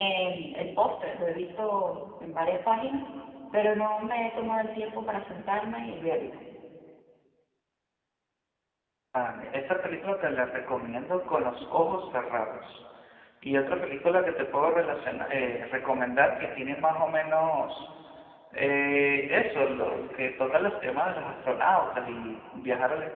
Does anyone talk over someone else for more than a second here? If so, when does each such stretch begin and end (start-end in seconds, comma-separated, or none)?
none